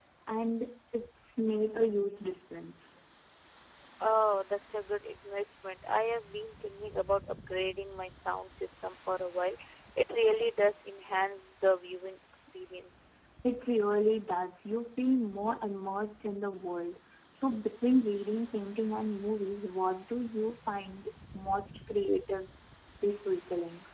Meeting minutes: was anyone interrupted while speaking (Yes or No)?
No